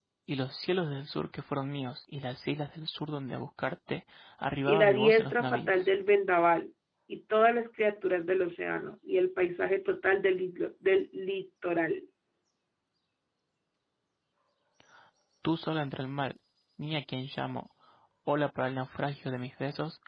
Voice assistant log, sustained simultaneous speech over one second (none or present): present